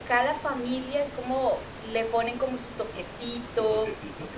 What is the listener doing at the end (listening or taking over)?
listening